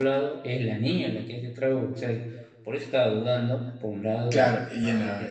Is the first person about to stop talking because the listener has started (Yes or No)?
Yes